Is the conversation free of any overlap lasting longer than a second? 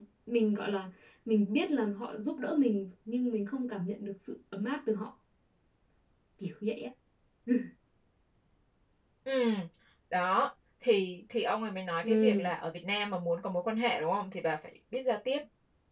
Yes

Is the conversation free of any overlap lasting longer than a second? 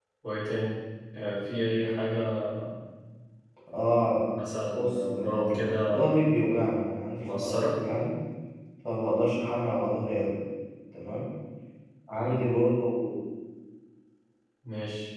No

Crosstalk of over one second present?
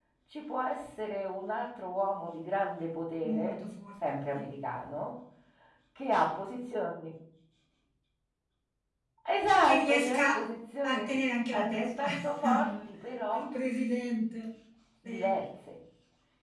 Yes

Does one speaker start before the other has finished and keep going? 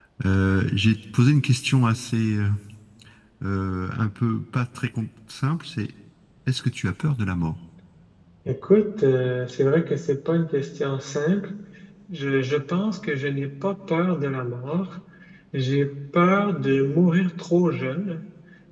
No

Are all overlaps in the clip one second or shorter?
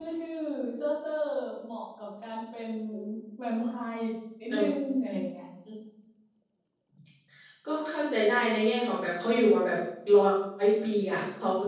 Yes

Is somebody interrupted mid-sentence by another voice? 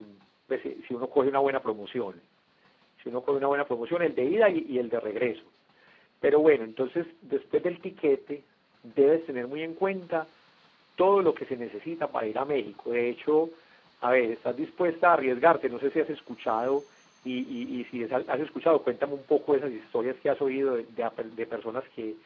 No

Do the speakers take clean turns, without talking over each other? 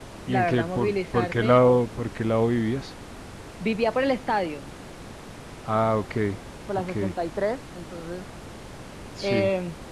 No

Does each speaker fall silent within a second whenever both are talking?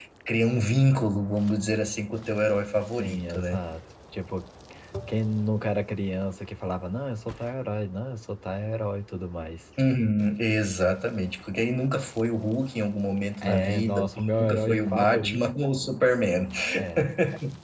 No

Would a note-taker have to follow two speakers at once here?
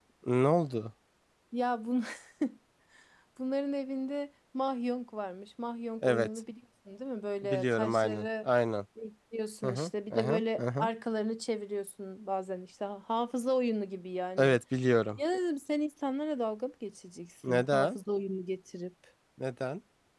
Yes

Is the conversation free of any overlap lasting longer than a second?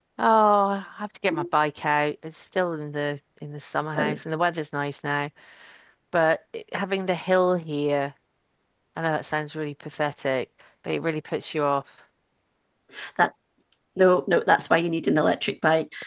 Yes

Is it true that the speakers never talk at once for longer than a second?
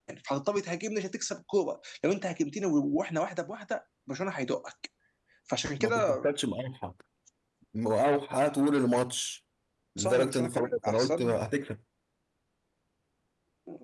No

